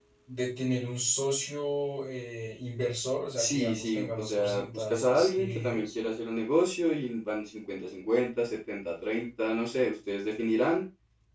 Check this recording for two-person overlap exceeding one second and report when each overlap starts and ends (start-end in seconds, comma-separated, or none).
3.4-5.9